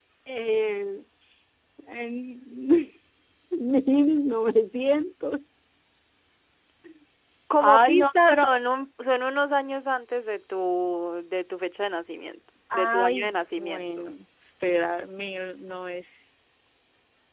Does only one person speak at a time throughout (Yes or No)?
No